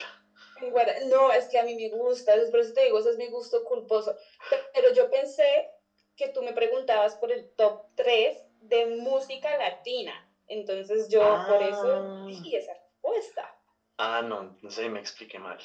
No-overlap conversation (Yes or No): No